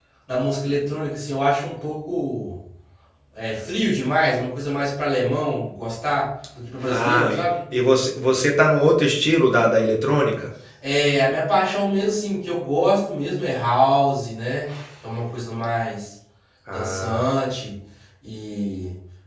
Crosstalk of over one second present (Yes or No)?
No